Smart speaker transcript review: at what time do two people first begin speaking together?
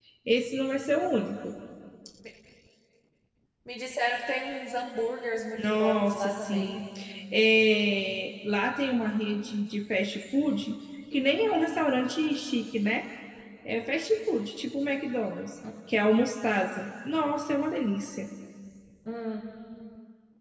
5.5 s

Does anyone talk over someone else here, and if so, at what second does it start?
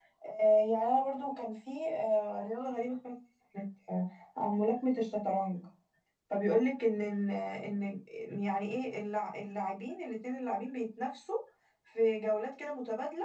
none

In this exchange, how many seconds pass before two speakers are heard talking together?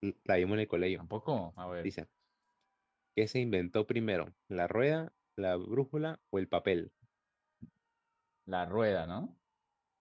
none

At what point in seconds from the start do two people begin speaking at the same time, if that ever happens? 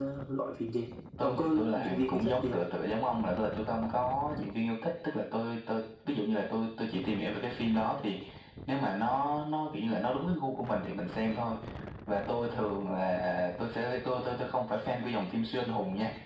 1.2 s

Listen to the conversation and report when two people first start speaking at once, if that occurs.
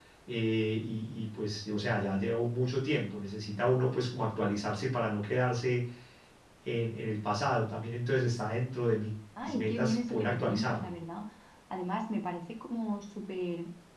9.4 s

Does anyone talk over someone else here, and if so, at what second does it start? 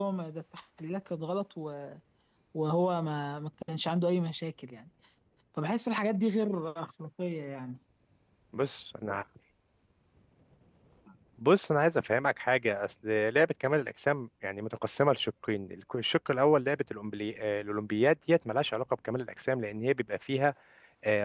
none

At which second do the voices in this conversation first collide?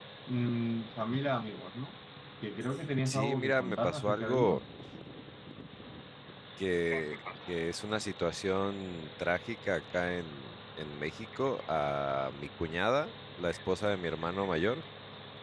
3.1 s

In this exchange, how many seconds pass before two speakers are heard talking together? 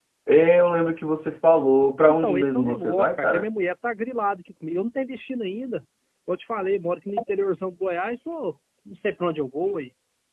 2.2 s

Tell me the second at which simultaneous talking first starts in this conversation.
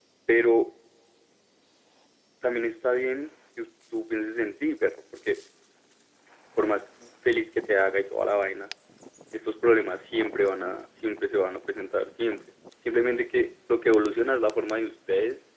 none

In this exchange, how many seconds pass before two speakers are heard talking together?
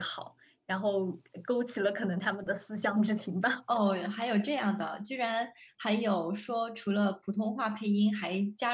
none

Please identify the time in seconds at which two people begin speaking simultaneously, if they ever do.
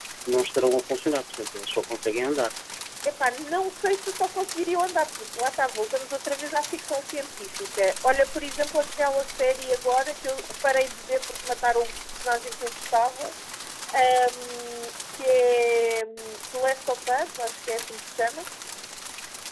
none

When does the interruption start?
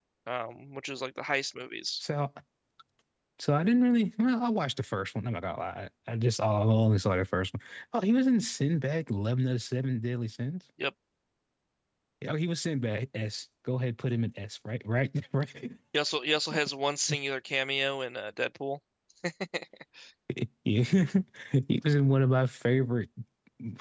none

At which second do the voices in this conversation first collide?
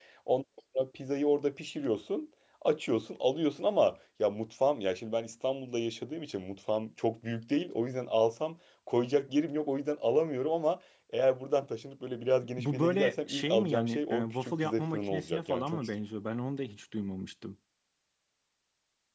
12.6 s

